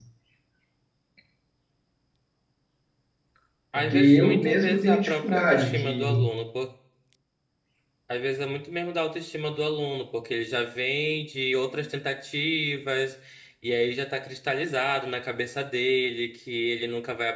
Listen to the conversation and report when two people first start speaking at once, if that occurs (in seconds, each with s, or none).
3.8 s